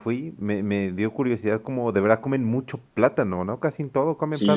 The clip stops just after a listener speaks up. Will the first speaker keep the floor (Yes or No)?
No